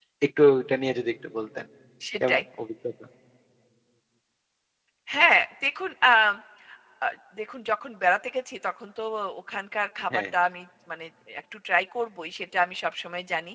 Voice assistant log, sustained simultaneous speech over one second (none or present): none